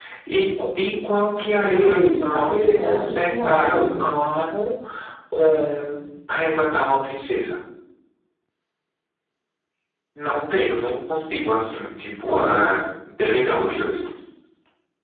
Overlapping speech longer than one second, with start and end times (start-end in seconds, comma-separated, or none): 1.6-4.1